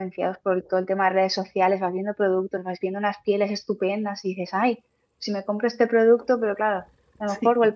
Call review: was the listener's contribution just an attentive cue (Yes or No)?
Yes